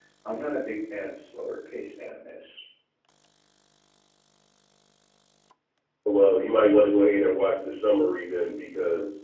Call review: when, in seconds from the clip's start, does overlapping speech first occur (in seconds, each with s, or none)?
none